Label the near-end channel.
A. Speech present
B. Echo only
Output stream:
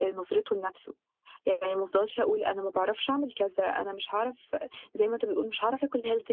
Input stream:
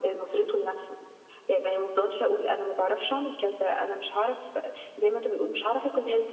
B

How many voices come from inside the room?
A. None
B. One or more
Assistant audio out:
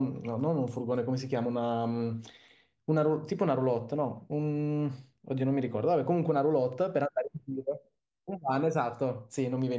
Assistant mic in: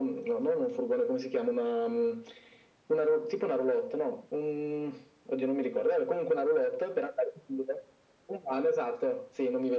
A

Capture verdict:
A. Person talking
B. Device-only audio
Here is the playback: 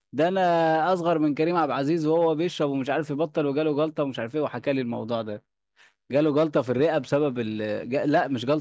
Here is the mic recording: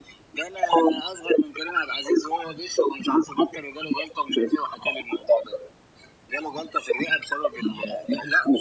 B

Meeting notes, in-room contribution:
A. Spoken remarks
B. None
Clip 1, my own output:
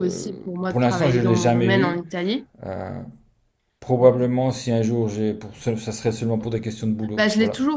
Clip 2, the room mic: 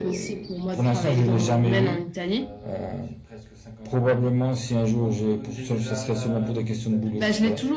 A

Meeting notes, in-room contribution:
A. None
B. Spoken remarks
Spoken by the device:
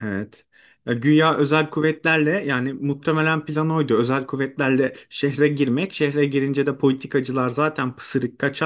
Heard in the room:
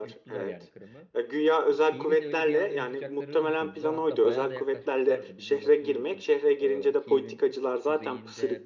B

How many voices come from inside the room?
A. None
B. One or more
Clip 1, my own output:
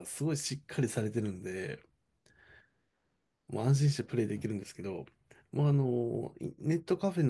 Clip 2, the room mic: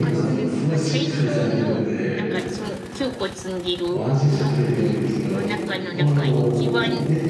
B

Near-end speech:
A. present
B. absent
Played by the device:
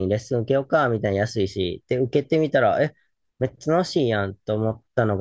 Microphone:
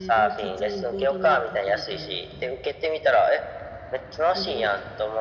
A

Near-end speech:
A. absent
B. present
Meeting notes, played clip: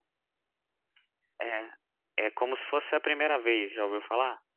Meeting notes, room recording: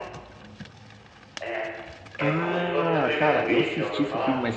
B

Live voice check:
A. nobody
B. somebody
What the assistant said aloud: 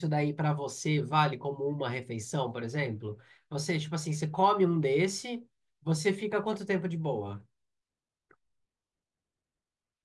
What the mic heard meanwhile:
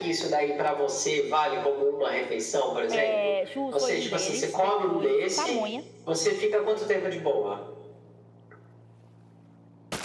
B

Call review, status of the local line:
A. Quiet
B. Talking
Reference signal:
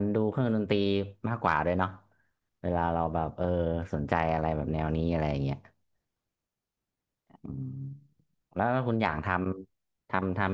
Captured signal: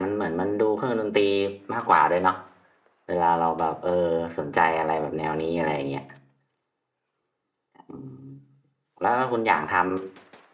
A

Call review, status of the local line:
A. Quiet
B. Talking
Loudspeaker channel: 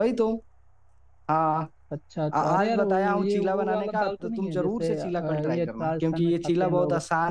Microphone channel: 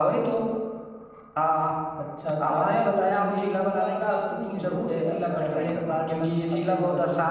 A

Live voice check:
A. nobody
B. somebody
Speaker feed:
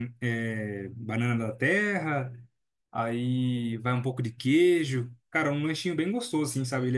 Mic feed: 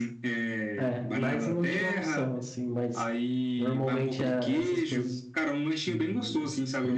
B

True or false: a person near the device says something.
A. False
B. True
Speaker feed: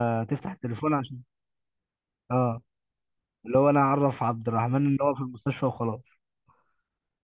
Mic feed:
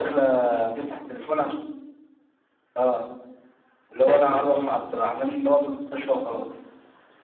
B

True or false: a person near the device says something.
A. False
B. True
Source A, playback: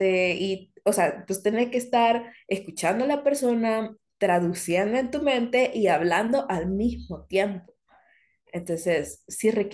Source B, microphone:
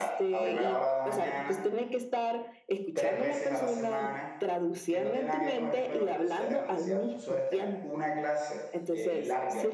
B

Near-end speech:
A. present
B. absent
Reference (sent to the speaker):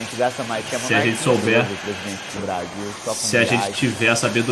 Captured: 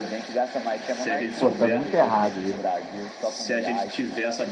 A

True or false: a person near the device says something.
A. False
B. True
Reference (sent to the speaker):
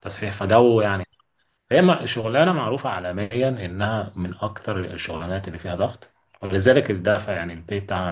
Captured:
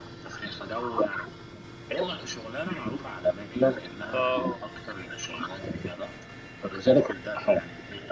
B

